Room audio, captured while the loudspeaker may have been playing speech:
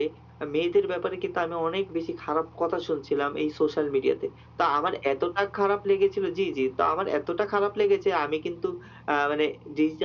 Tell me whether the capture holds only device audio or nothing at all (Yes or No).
Yes